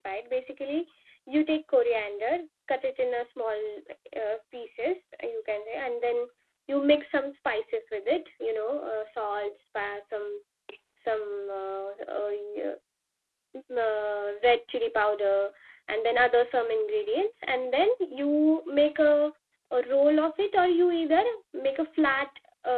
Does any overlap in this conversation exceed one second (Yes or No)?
No